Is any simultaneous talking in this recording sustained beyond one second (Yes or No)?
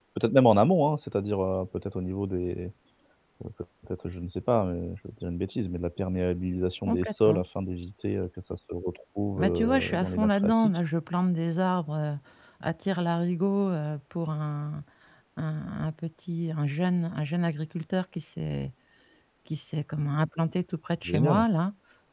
Yes